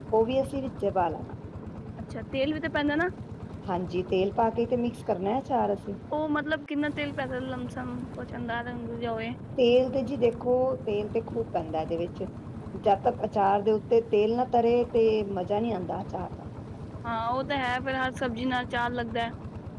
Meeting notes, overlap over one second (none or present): none